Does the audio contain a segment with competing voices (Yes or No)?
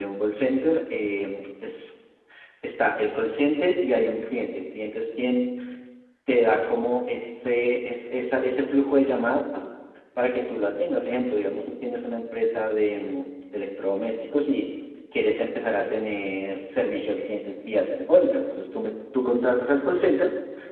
No